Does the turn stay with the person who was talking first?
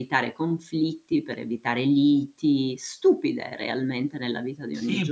No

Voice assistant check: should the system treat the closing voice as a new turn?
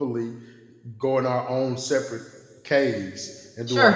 Yes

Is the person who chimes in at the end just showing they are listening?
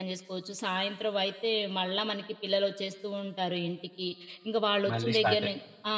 Yes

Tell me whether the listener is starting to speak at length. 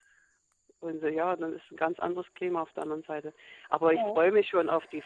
No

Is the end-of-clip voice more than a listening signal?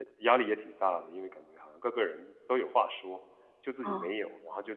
No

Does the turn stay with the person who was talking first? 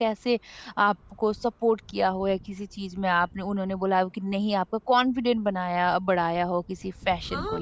No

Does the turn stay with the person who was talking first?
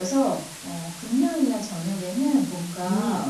Yes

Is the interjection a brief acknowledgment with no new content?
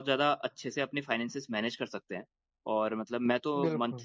Yes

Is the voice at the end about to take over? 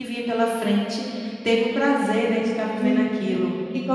Yes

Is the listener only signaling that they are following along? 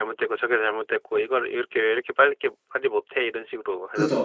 No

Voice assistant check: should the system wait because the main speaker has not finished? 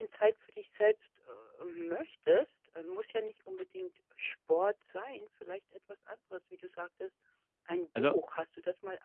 Yes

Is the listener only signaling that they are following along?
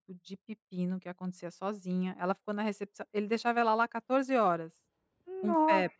Yes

